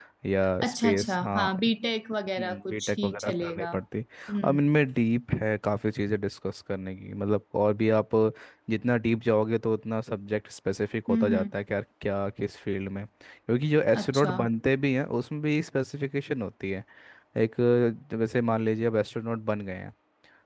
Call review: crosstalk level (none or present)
present